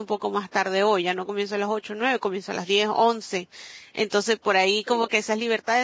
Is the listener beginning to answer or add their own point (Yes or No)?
No